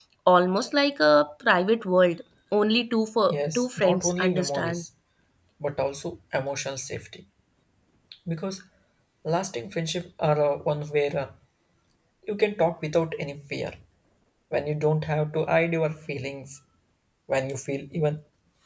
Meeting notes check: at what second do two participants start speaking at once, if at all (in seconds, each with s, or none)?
3.6 s